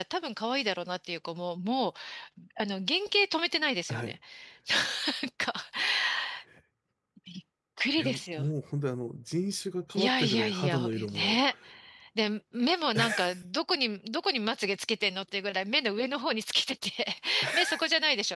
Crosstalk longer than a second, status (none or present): present